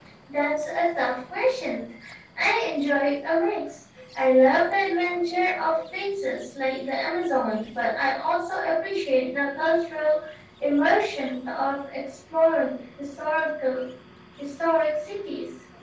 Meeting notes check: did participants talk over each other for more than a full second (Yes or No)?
No